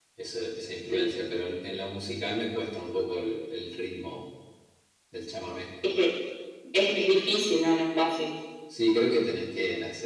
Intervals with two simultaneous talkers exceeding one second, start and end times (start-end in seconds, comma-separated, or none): none